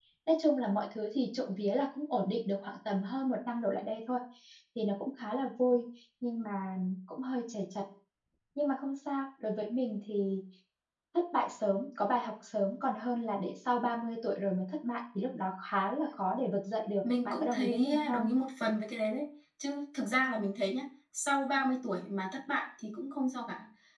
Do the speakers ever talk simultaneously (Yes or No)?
Yes